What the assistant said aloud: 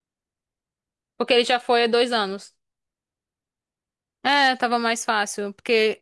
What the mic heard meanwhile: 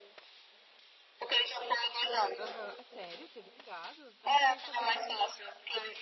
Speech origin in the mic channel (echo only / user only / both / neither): both